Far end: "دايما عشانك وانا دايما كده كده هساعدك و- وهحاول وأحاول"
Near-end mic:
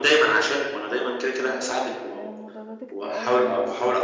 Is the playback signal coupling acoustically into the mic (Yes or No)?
Yes